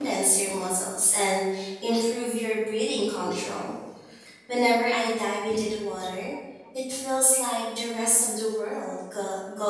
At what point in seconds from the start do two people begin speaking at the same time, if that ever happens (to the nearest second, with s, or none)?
none